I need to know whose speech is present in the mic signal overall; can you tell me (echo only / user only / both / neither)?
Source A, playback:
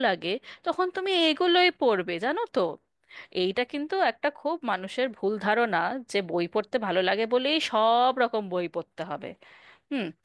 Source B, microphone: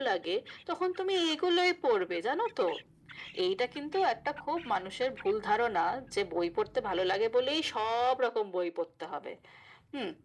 echo only